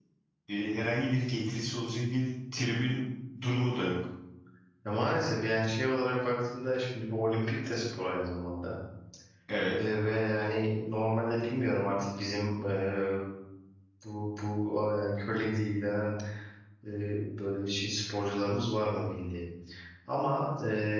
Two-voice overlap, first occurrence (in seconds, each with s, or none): none